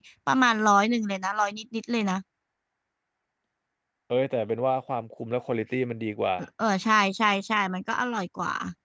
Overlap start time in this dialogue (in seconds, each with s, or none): none